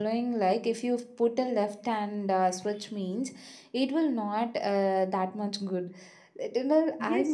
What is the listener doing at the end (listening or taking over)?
taking over